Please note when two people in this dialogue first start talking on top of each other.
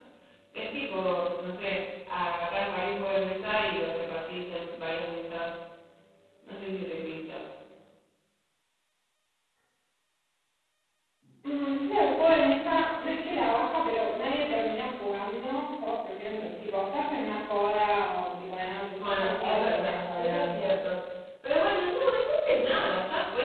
19.0 s

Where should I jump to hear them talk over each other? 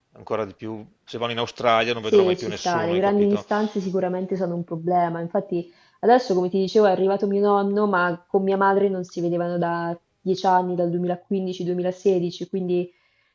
2.1 s

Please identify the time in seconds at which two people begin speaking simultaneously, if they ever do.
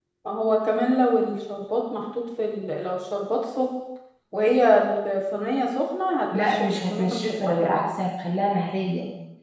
6.3 s

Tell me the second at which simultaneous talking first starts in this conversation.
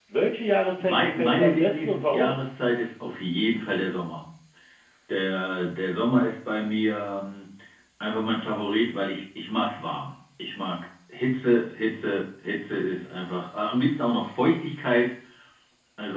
0.8 s

